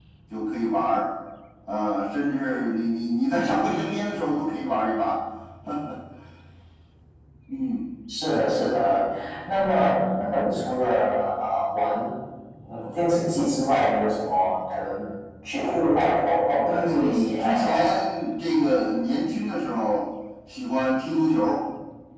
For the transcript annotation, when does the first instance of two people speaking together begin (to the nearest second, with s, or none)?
17 s